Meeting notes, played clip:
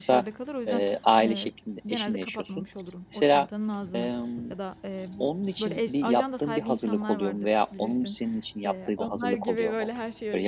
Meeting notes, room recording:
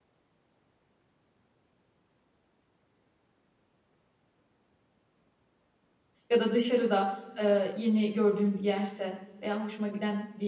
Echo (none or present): none